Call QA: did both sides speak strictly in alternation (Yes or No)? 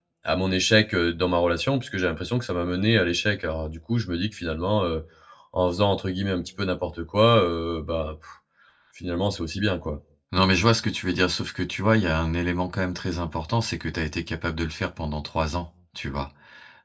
Yes